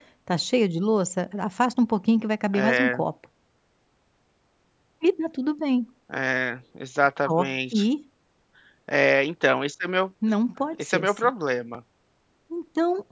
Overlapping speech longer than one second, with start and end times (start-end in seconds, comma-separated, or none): none